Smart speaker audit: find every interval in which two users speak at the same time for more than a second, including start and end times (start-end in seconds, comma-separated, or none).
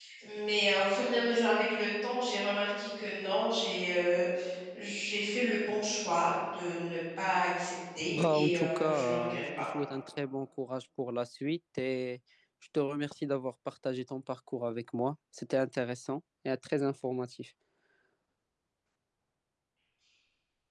8.1-9.4